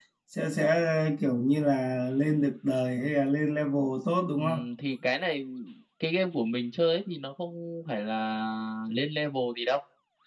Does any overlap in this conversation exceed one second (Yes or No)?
No